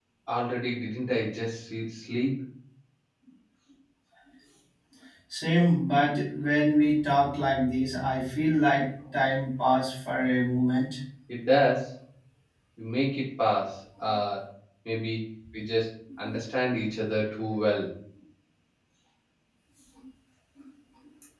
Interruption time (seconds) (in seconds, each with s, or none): none